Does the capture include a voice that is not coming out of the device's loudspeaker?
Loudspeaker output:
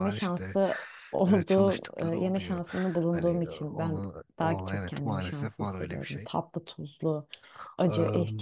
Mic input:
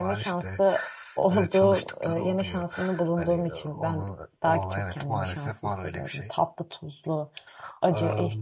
No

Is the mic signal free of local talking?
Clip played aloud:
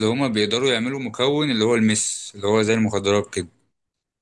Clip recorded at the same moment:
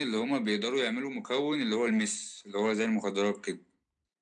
Yes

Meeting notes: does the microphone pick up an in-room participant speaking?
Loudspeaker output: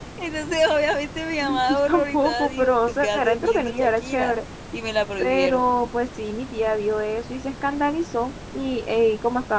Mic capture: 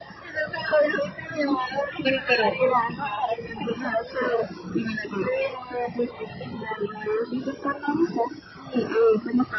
Yes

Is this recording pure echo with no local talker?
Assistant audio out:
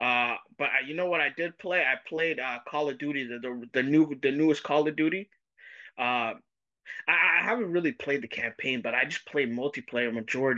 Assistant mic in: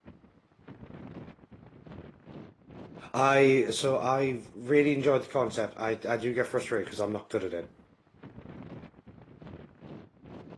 No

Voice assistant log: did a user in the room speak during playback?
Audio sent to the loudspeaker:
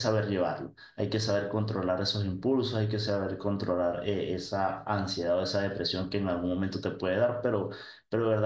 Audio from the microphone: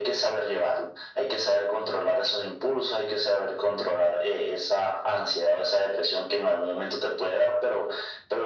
No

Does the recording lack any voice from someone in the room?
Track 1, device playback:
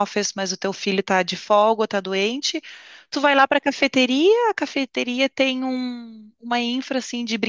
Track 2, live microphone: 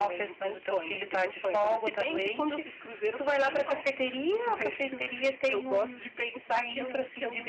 No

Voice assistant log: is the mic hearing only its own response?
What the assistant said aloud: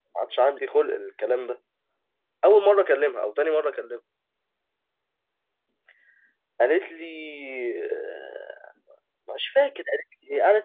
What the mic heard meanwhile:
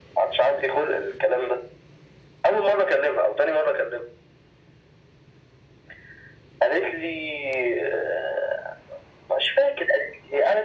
Yes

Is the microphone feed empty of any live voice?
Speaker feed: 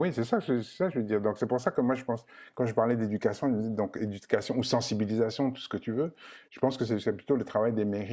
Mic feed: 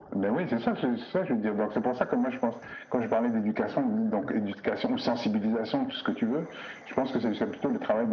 Yes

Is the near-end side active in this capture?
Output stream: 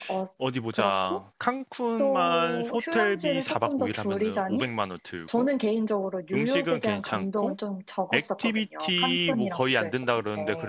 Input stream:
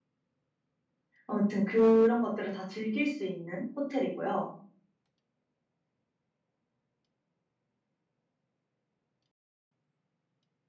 Yes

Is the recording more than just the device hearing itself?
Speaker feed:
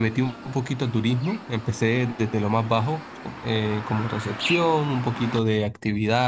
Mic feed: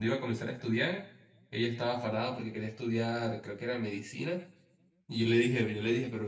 Yes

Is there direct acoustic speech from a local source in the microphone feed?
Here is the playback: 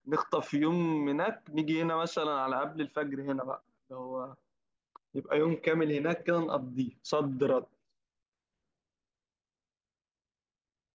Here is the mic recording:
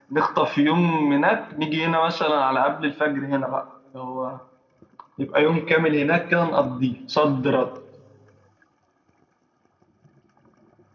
No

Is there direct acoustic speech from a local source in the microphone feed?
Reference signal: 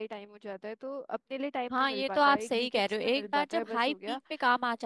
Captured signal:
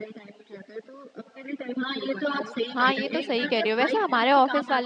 Yes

